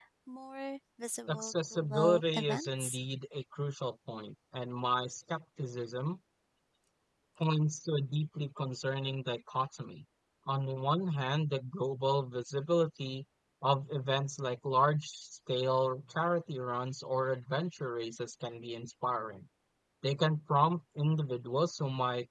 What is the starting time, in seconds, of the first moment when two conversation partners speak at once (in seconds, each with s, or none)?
1.3 s